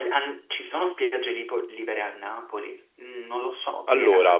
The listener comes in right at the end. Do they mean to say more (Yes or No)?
Yes